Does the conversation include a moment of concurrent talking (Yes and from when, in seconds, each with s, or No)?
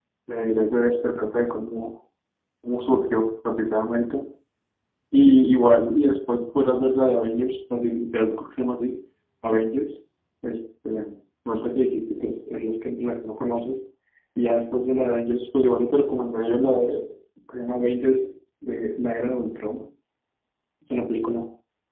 No